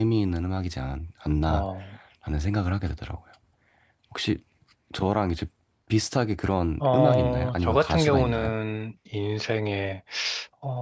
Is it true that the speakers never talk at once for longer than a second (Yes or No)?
No